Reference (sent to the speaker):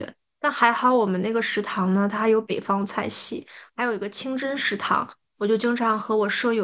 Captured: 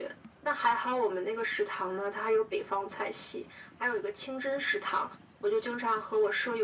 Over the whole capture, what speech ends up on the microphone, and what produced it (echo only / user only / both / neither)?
echo only